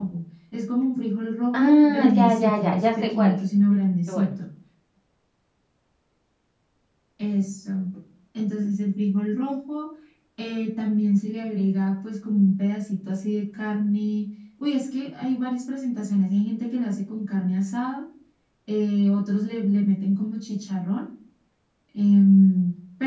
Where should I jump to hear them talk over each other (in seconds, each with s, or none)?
1.5 s